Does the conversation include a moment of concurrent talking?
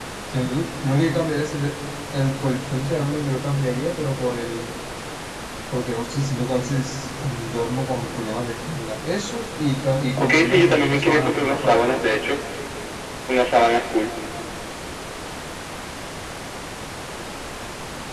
Yes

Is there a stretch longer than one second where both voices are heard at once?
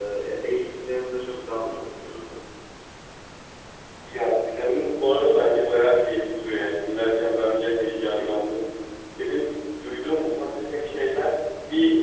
No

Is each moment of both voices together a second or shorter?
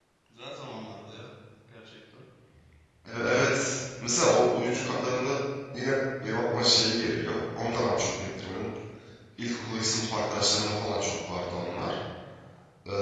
Yes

